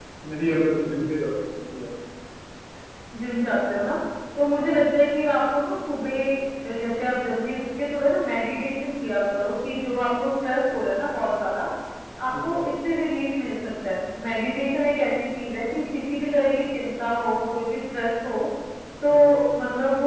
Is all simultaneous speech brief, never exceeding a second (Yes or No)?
Yes